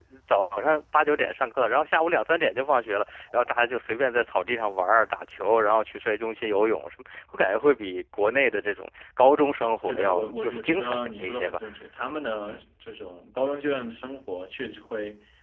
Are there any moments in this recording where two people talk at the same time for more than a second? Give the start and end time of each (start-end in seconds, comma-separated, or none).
9.9-11.6